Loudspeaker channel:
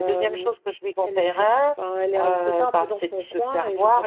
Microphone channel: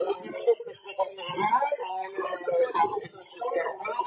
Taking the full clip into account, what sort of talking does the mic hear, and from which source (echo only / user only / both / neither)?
echo only